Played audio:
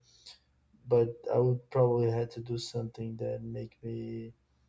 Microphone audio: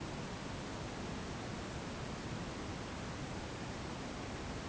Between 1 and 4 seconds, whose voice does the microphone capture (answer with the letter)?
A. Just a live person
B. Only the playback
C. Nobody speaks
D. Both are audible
C